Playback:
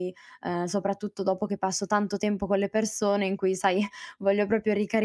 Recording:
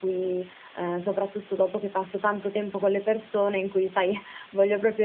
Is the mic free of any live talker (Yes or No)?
Yes